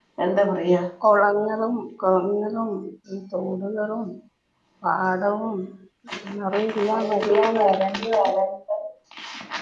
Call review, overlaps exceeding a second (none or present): present